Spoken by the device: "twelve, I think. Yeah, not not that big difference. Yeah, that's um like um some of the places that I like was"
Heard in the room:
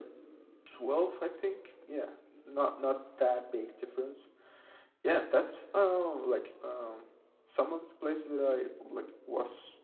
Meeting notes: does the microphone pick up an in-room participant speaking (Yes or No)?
No